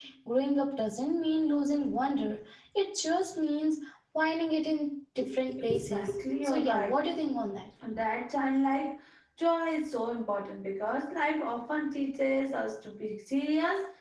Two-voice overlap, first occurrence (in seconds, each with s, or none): 5.7 s